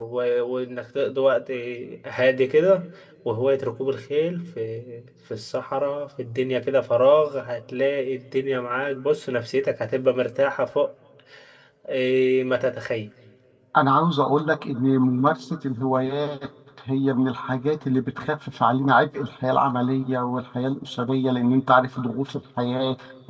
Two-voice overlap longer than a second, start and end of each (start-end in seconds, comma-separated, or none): none